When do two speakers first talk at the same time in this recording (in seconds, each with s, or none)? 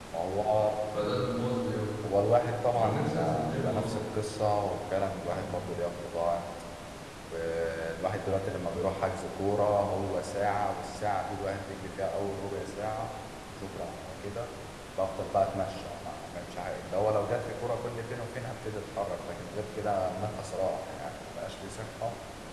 2.8 s